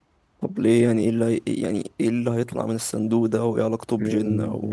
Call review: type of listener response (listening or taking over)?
taking over